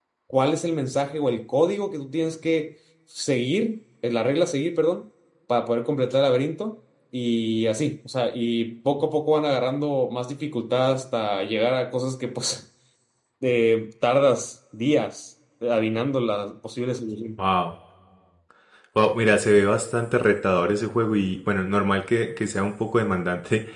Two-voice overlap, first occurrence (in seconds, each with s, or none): none